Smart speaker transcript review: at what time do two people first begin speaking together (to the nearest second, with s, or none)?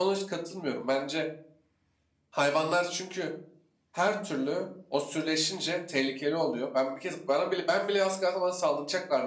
none